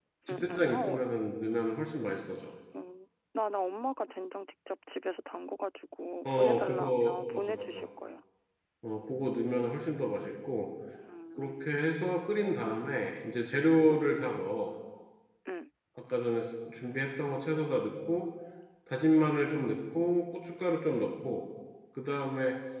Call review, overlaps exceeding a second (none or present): present